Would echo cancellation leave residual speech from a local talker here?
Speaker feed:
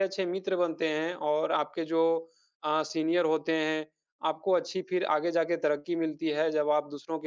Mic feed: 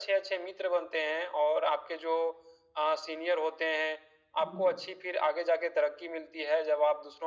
Yes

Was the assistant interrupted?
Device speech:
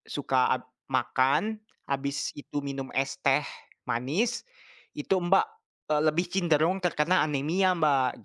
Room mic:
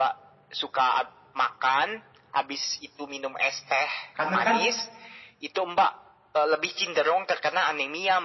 Yes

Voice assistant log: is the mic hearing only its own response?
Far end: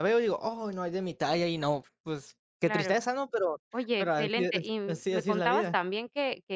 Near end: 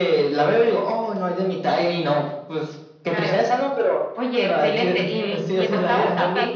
No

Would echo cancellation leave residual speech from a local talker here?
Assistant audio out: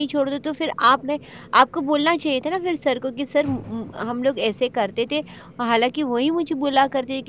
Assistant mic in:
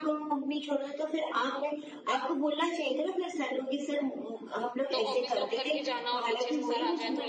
Yes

